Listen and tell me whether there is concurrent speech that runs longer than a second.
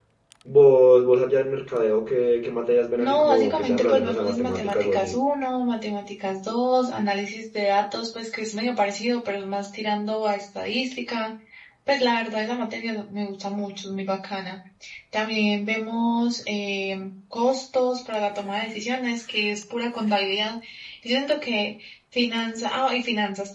Yes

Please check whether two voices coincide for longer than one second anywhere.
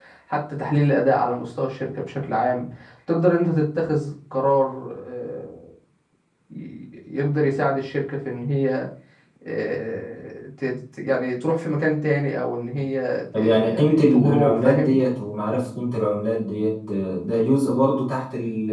Yes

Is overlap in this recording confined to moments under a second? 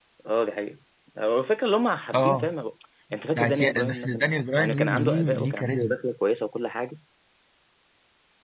No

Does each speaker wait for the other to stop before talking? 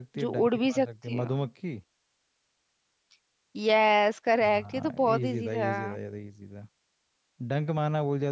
No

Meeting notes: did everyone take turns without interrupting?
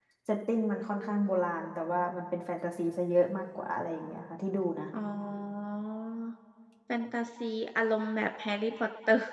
Yes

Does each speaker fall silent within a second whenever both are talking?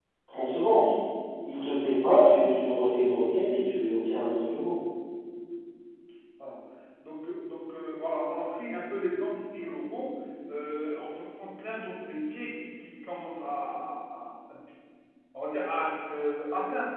Yes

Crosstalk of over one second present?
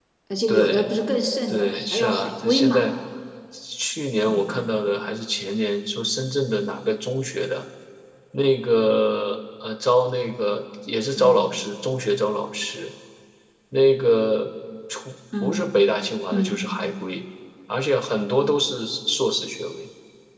Yes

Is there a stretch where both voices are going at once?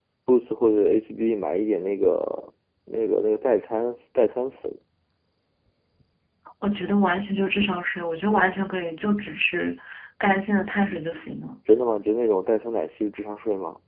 No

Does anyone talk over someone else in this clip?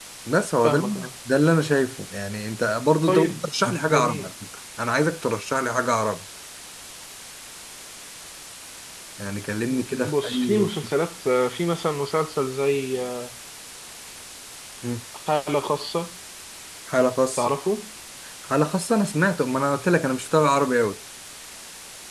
Yes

